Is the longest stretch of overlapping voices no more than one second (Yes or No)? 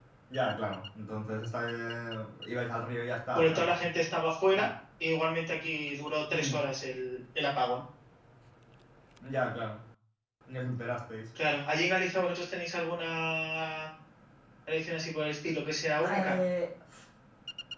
Yes